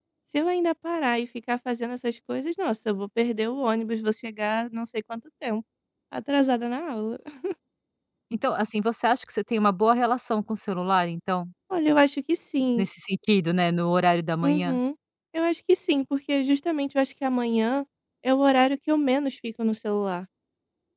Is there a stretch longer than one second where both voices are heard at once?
No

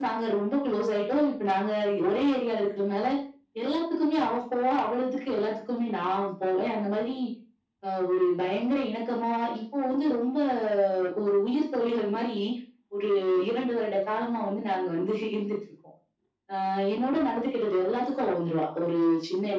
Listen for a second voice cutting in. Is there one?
No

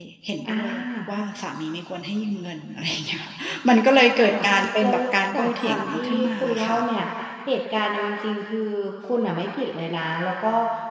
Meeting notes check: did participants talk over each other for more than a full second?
Yes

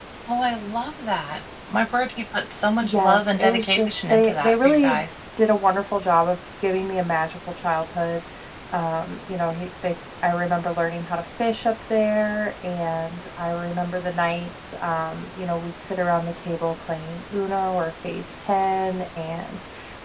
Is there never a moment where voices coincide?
No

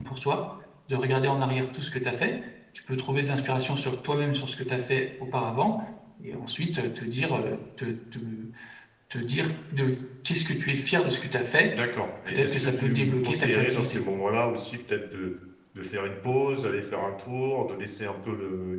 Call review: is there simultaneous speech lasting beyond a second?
Yes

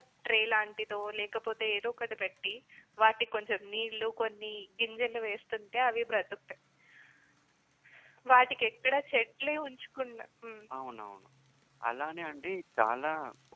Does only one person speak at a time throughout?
Yes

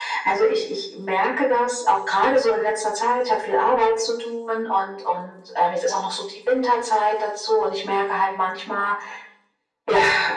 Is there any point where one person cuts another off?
No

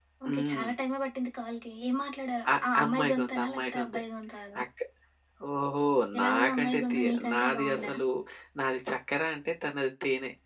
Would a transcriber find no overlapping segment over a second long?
No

